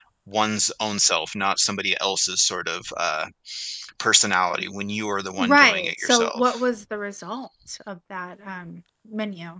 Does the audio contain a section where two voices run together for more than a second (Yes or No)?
Yes